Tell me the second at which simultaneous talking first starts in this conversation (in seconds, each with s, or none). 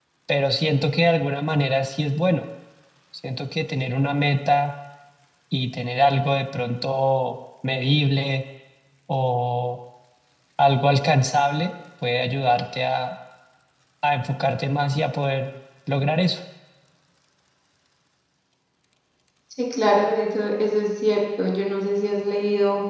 none